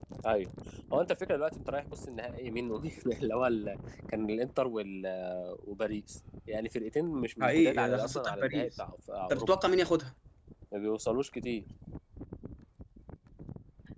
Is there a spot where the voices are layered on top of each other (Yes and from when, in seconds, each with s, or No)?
Yes, from 7.4 s